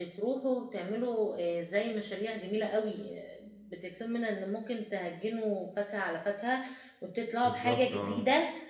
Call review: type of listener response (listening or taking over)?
listening